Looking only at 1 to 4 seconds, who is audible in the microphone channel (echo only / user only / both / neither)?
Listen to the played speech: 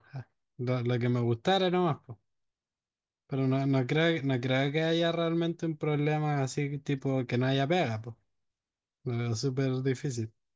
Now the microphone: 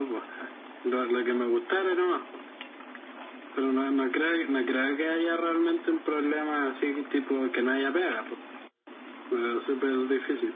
echo only